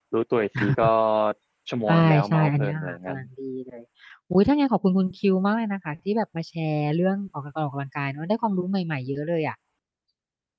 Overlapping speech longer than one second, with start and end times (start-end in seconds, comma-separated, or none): 1.9-3.2